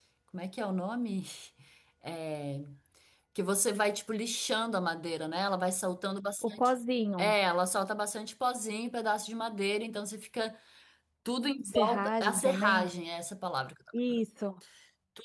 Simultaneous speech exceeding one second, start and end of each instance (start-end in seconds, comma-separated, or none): 11.7-12.9